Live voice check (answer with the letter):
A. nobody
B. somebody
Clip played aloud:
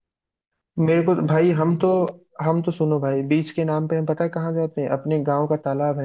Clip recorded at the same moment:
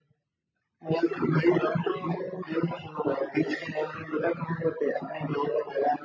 A